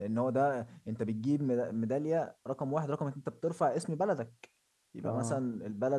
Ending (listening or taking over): listening